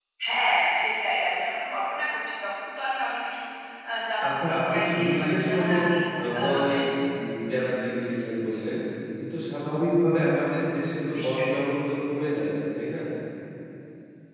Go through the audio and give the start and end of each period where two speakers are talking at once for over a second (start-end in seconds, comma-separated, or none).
4.5-5.8